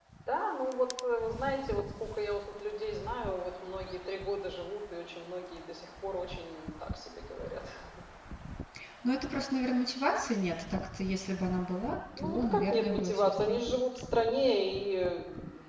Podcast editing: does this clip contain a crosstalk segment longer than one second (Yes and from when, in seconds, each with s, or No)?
Yes, from 12.2 s